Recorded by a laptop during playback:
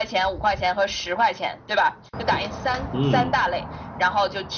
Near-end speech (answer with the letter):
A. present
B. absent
A